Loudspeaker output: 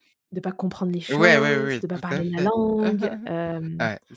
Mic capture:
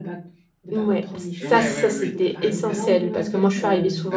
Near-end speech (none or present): present